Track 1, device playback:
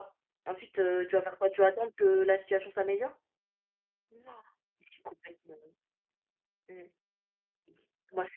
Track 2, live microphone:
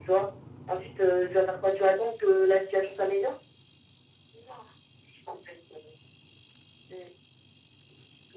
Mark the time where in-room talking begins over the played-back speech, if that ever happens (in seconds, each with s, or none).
none